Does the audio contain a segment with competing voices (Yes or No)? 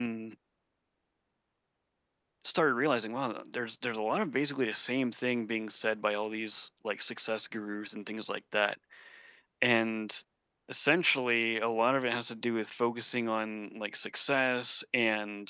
No